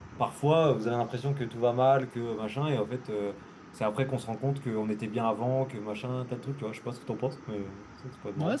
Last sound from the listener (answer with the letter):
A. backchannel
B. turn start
B